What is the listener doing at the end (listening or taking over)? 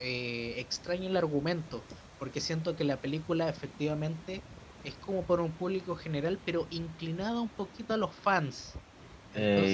taking over